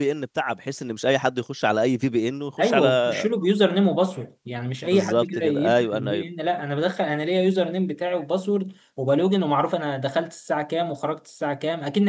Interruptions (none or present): present